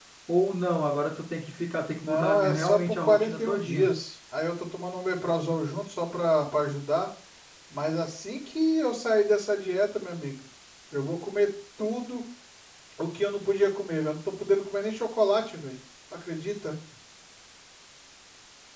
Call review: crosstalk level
present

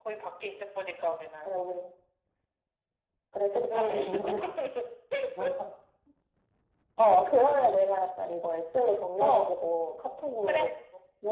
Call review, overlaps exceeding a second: none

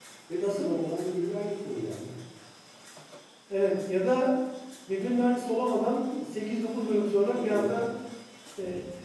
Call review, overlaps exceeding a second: none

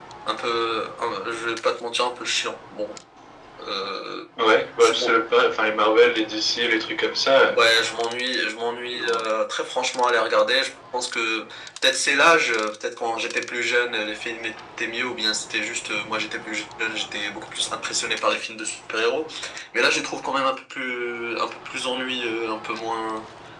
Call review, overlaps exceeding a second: none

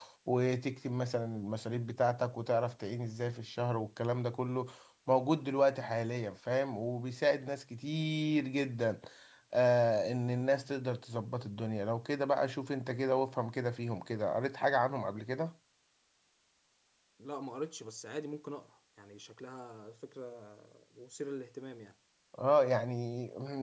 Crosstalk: none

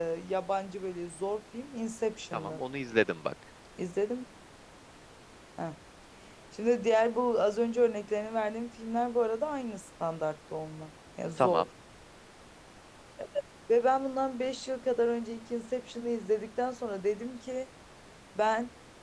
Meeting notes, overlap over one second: none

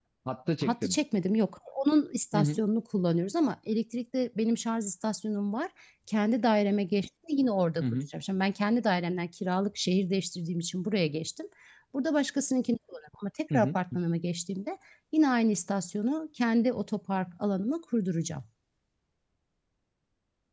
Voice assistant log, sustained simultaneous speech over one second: none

